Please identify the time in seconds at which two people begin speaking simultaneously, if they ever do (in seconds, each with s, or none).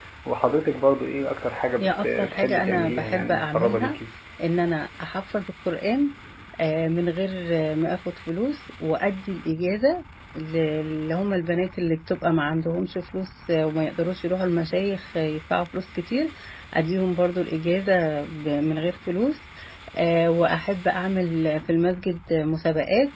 1.8 s